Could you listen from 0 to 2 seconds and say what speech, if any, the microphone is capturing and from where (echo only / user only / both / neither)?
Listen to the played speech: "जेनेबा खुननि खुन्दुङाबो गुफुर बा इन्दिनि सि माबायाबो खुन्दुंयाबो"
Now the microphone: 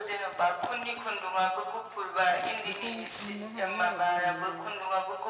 echo only